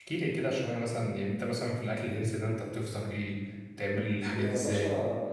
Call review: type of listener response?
taking over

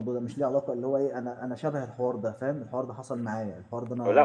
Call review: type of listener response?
taking over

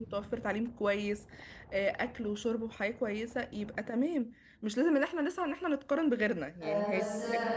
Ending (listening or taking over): taking over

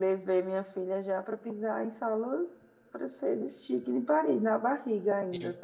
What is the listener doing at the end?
taking over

